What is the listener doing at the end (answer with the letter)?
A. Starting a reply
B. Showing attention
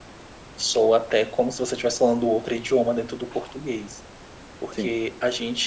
B